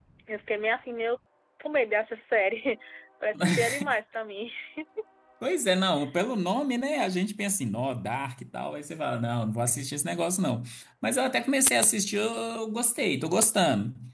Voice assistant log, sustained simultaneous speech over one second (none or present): none